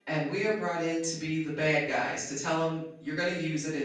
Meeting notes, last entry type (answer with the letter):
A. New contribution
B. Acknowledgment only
B